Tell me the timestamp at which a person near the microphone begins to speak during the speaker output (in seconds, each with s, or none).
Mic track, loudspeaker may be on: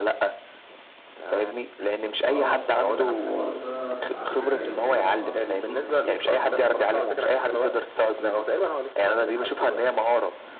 2.2 s